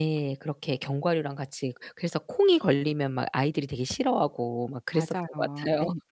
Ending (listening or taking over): taking over